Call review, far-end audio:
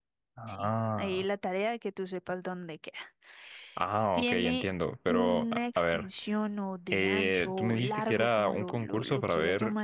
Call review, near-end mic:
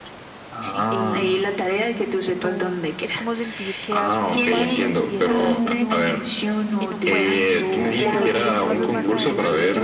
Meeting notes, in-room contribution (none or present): present